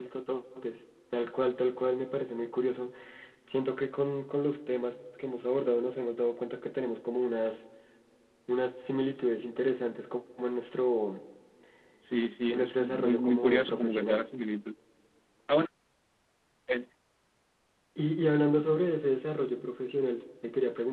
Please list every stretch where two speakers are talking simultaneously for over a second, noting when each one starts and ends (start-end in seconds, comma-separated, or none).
12.5-14.2